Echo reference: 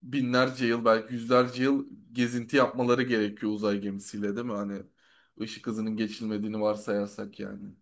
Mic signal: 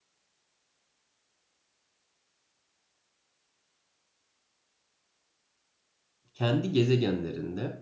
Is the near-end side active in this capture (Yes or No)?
Yes